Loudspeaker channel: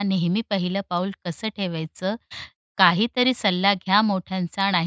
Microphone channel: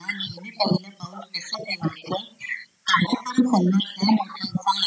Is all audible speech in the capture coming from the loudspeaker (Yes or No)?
Yes